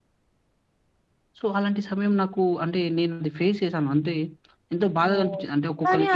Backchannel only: No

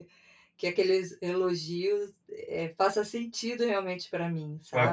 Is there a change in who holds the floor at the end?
Yes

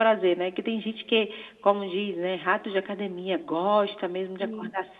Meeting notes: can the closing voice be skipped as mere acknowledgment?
Yes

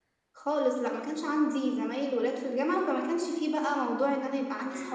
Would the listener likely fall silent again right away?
No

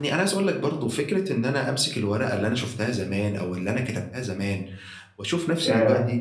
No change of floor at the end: Yes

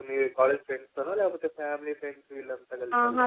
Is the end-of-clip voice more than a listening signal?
Yes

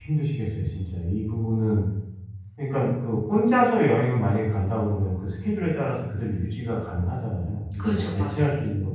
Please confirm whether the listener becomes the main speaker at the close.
No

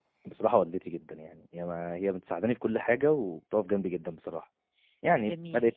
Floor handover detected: Yes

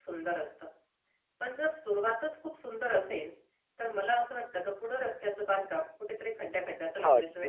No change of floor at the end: No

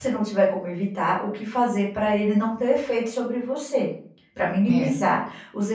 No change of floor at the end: Yes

